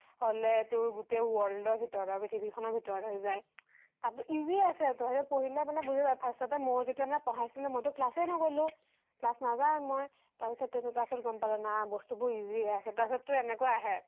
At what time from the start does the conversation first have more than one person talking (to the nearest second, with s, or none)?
none